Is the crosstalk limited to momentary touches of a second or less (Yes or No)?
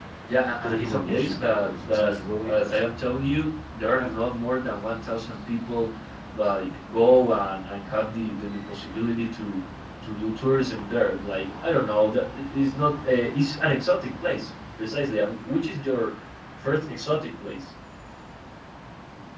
No